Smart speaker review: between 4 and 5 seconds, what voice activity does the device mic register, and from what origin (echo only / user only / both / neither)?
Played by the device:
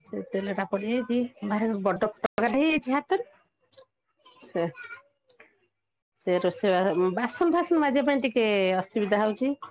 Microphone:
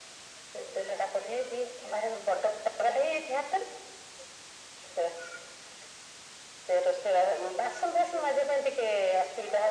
echo only